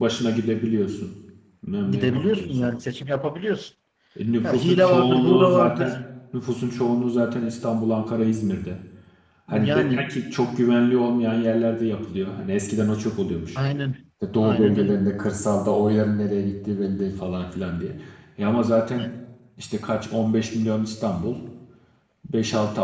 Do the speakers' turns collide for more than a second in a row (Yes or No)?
Yes